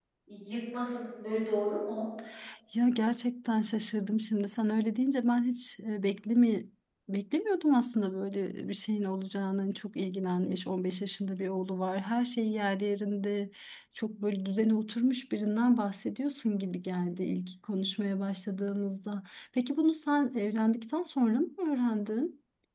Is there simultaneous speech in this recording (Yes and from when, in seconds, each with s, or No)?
No